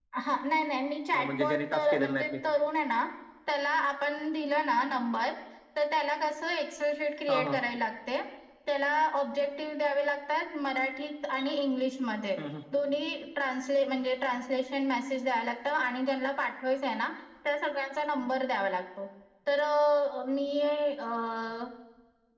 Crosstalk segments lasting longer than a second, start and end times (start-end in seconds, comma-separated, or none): 1.1-2.3